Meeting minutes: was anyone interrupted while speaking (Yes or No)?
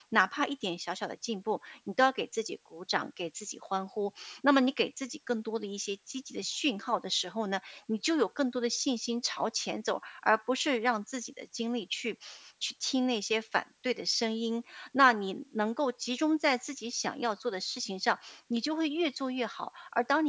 No